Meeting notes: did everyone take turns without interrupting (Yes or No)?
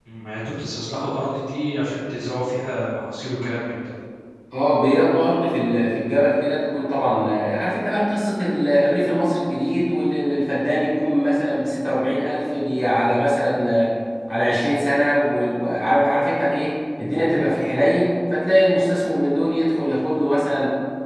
Yes